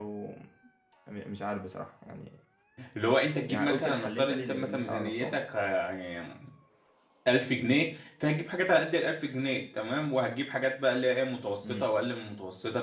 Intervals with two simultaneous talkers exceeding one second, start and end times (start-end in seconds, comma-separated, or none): 3.5-5.4